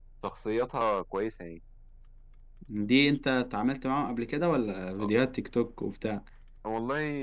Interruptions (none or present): none